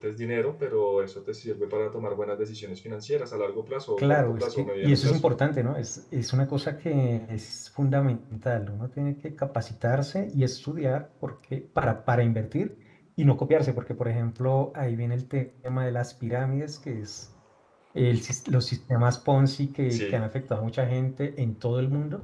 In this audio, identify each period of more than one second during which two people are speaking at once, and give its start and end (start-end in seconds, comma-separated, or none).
4.0-5.2